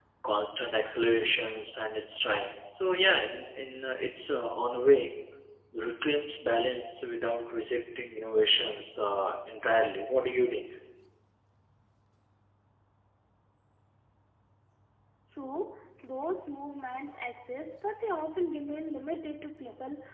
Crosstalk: none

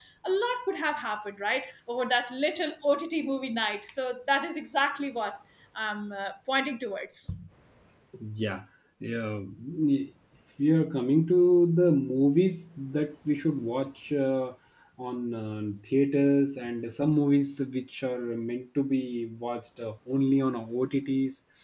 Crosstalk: none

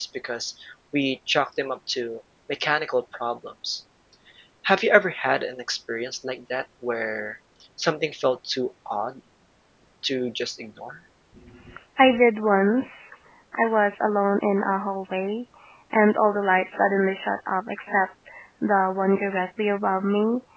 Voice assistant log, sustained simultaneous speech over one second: none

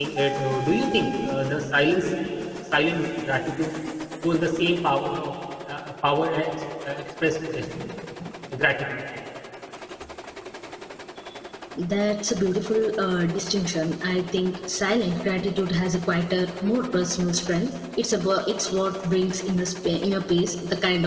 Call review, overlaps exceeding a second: none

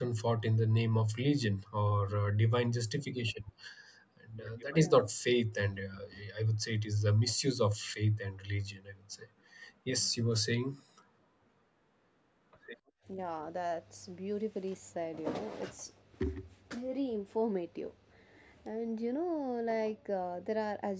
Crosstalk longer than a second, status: none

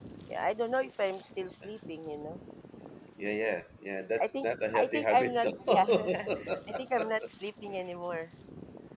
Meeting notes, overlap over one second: present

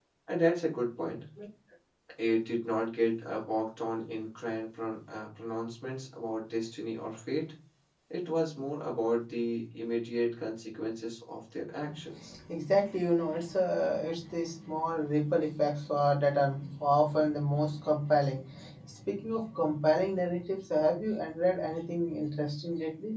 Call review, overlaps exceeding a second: none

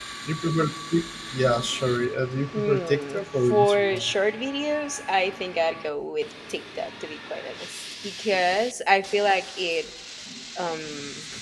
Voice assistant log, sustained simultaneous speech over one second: present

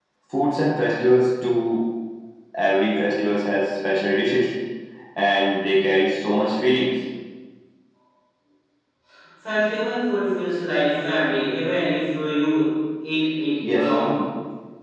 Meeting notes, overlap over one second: none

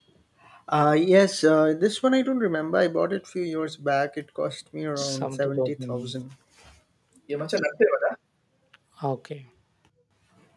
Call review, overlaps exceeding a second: present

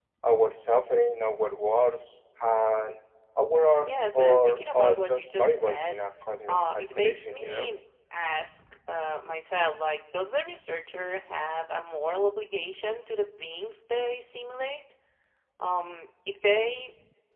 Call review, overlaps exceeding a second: present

